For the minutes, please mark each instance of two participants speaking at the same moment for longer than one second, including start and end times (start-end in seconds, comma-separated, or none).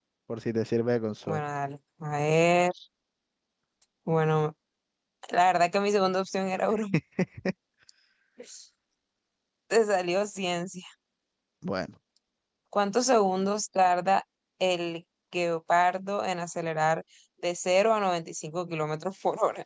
none